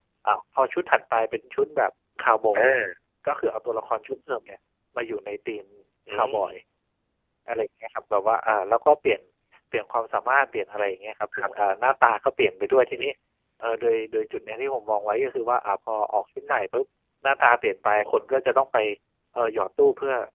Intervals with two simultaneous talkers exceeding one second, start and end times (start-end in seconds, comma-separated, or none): none